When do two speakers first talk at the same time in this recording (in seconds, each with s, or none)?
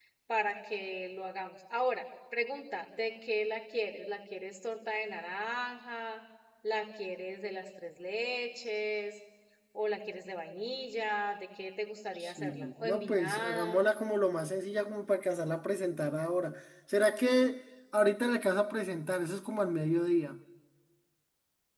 12.2 s